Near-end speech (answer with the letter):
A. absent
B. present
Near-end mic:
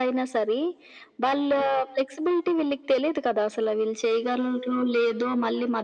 A